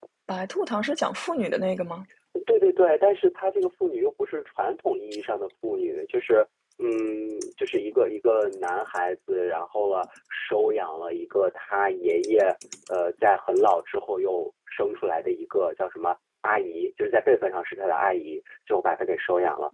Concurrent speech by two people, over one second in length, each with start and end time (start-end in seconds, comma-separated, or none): none